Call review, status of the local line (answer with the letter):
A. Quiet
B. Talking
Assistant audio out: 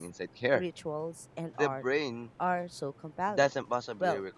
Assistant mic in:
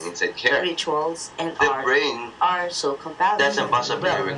B